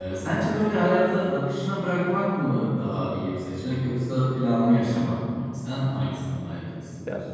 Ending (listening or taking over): taking over